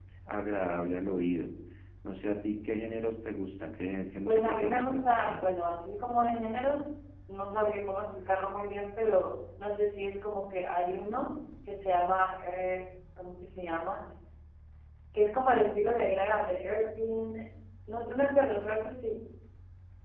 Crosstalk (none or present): present